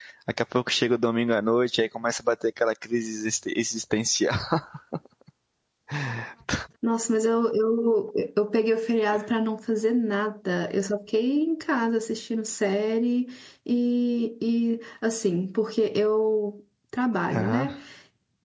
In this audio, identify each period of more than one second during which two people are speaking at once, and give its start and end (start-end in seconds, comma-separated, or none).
none